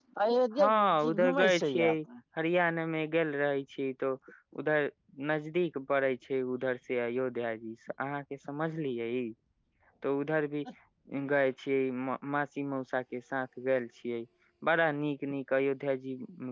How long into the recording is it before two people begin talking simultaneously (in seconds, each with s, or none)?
0.6 s